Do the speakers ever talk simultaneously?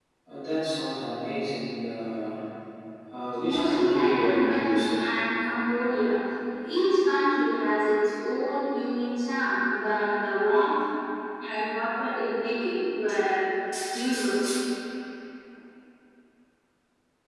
Yes, from 3.4 s

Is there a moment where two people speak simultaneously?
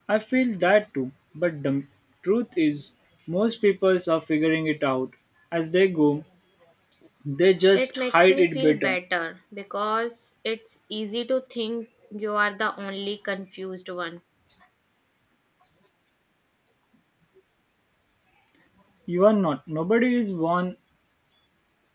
Yes, from 7.7 s

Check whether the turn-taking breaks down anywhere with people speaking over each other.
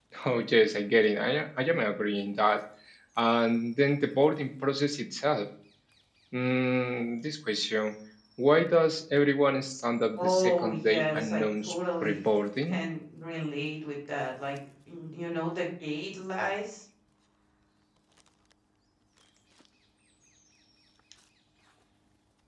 Yes, from 10.2 s

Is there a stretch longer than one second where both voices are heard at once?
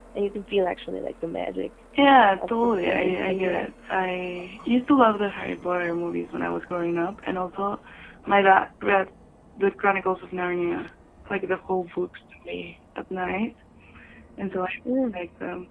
Yes, from 2.4 s

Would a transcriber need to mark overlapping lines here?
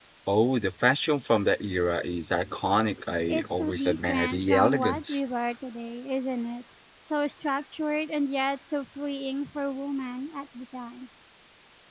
Yes, from 3.3 s

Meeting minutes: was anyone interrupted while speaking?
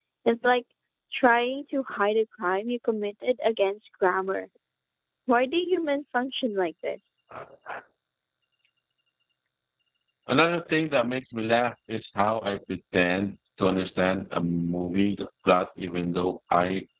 No

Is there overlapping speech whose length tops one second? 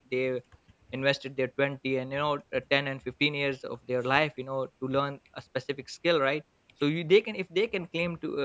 No

